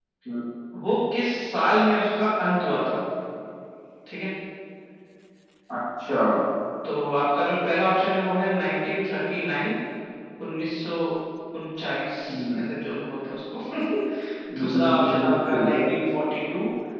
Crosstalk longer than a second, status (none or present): present